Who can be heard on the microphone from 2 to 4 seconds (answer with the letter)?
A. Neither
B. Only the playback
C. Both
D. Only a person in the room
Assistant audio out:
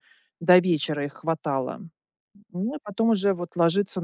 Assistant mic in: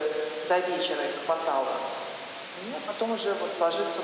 B